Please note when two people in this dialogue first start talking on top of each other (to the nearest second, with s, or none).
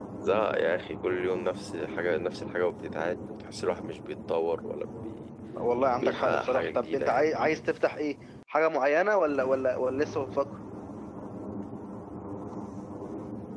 6 s